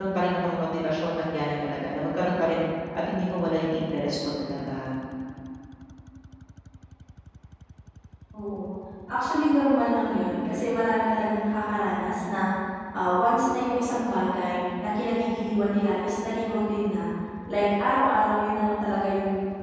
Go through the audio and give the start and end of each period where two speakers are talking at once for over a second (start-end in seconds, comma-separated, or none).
none